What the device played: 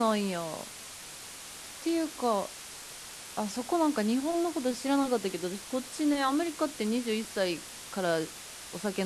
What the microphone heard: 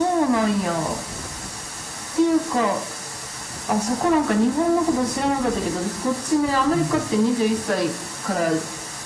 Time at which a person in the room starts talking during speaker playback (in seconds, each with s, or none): 6.7 s